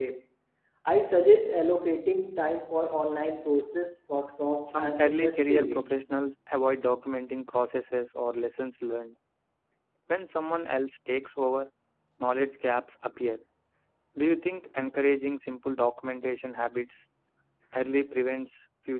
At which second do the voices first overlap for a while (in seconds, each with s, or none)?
4.7 s